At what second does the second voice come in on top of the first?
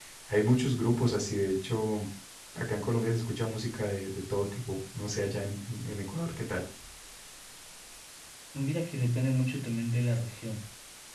none

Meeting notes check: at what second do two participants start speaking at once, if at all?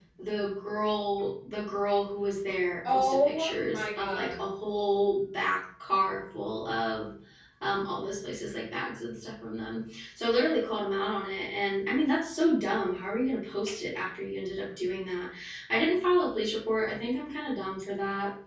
3 s

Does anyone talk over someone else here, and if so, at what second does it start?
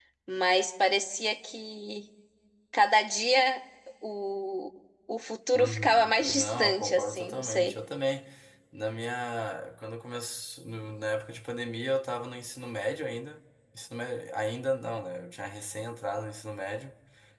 6 s

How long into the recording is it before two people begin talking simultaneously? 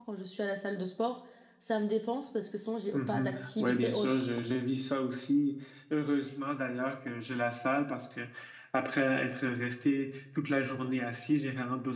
3 s

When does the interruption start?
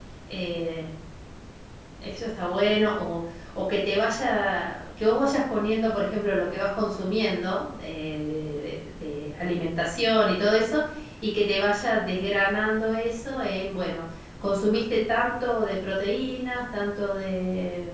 none

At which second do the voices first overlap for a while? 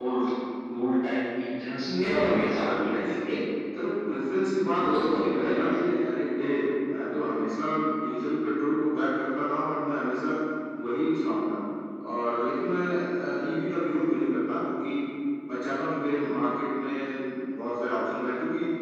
2 s

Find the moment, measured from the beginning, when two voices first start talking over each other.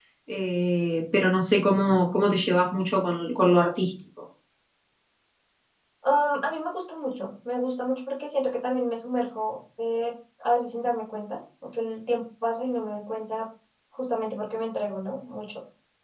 none

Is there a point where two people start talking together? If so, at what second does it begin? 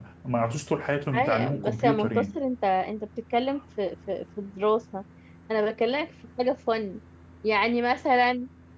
1 s

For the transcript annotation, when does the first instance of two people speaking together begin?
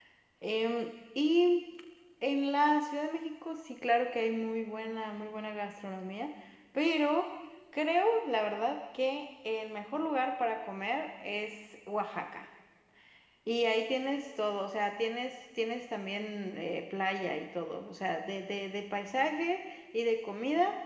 none

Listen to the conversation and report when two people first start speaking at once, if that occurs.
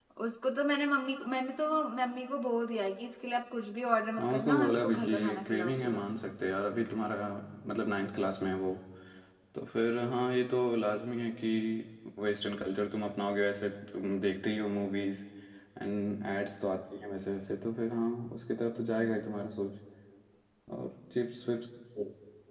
4 s

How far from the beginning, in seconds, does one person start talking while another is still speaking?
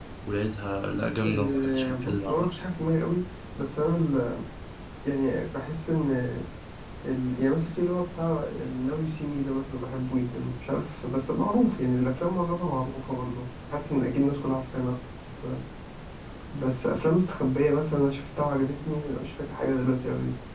1 s

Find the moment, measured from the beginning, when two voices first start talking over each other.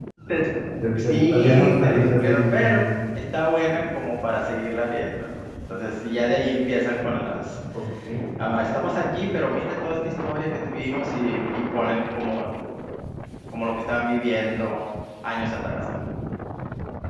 1 s

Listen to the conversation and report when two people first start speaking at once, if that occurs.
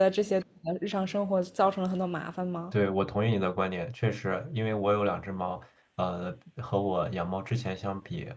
none

